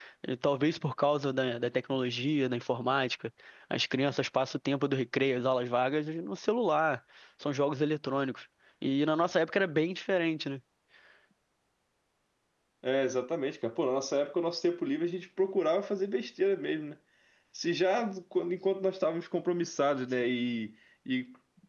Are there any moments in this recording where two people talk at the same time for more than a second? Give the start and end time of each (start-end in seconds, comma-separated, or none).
none